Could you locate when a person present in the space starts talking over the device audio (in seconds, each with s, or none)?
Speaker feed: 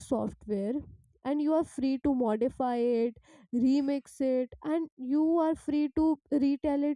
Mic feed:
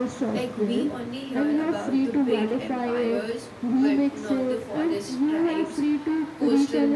0.3 s